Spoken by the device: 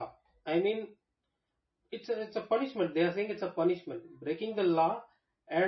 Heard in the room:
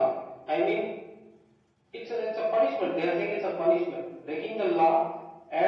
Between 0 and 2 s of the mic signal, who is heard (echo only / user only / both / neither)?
echo only